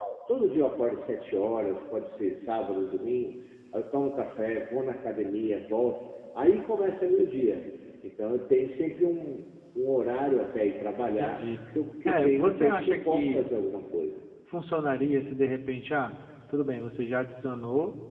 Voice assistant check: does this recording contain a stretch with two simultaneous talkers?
Yes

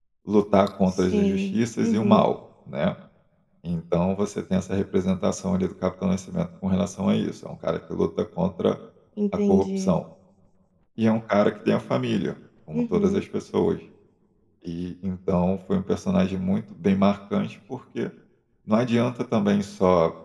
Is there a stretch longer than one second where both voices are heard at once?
Yes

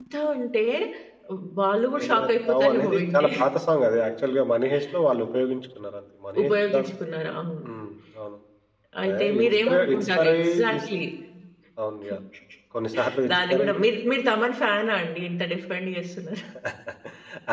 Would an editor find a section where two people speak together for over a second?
Yes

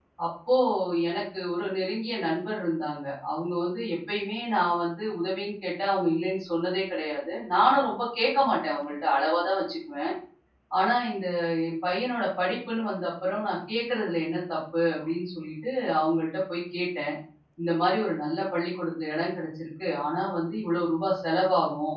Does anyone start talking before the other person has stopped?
No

